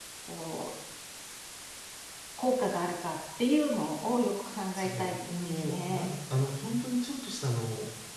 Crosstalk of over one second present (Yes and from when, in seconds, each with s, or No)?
Yes, from 4.7 s